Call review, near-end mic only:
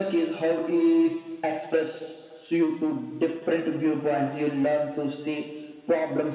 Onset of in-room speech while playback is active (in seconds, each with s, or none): none